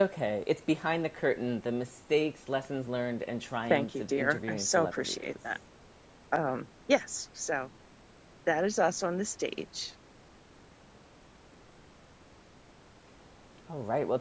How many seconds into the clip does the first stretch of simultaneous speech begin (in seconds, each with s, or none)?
3.7 s